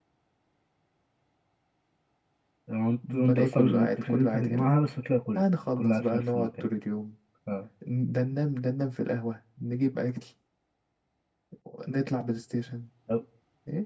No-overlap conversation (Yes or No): No